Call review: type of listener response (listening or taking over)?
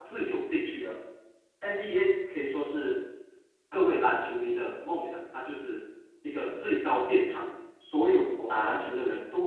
listening